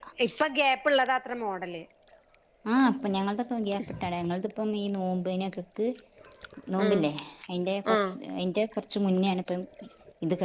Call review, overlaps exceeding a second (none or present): none